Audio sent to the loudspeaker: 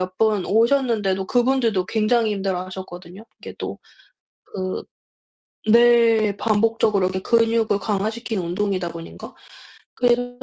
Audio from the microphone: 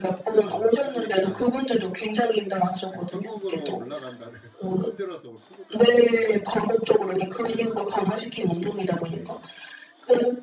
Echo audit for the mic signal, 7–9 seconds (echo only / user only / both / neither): both